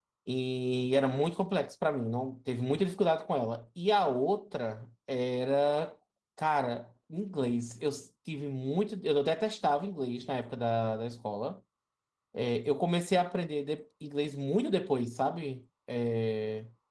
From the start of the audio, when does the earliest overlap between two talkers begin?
none

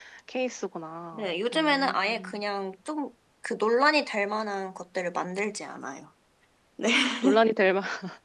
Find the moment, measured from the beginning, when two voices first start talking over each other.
1 s

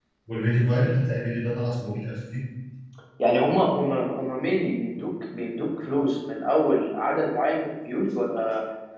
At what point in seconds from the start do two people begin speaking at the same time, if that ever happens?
none

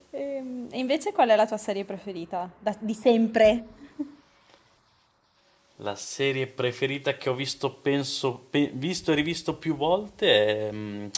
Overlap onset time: none

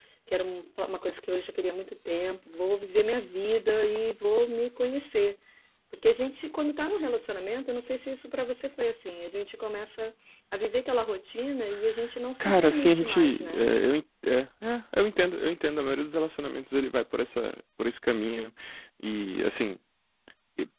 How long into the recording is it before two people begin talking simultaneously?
12 s

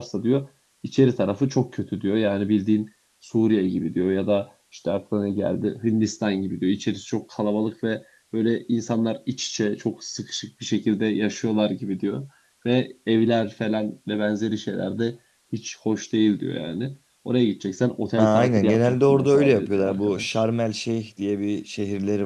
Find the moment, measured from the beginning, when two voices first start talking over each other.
18 s

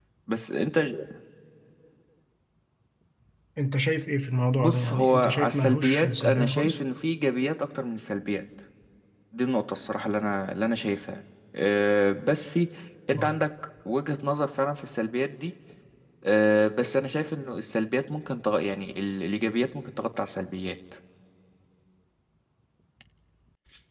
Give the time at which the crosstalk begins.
5 s

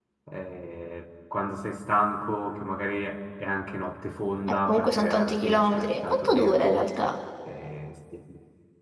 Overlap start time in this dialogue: 5 s

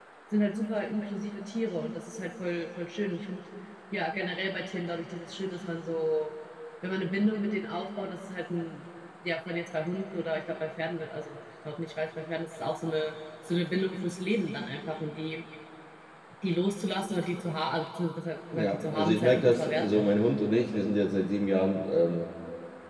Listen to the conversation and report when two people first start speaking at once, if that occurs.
19 s

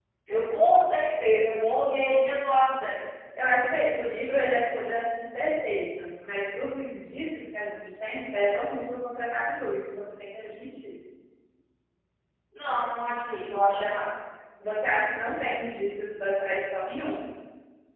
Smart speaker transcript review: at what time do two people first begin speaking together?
none

